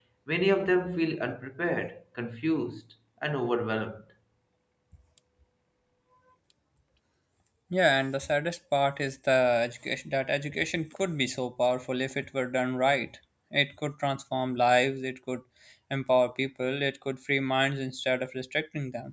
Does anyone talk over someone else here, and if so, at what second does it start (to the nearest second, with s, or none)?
none